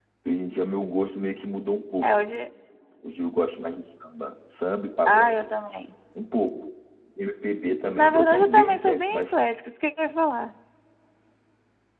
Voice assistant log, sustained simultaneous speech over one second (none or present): present